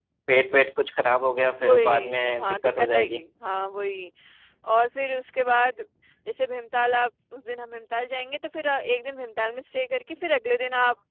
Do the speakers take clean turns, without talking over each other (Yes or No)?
No